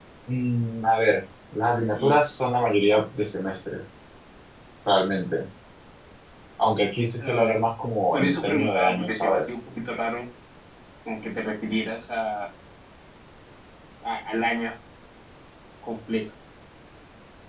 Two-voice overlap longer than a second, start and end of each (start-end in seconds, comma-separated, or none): 8.1-9.5